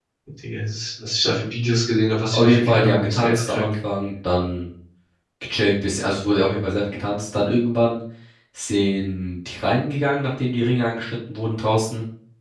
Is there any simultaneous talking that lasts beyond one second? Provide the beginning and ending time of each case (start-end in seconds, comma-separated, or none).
2.3-3.7